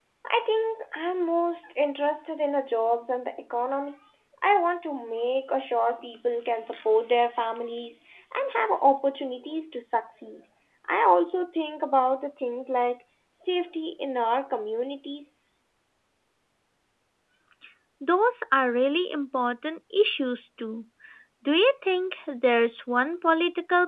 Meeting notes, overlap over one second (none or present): none